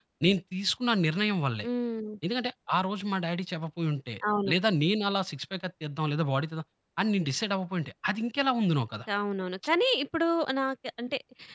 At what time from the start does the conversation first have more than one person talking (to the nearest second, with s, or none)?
none